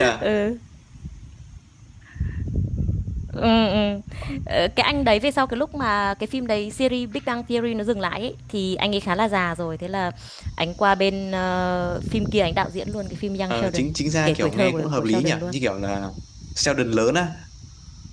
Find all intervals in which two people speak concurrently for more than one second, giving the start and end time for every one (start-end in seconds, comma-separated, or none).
14.2-15.5